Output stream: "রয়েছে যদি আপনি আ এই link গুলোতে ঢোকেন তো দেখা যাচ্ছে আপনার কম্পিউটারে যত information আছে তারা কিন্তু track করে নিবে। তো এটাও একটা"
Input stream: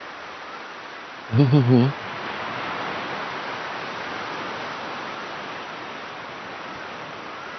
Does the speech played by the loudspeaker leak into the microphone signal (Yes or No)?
No